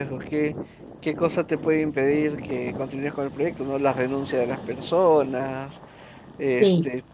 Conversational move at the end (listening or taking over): listening